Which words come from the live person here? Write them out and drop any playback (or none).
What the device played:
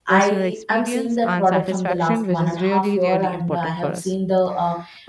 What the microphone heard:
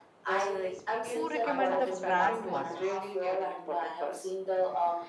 who recommend the brand to others.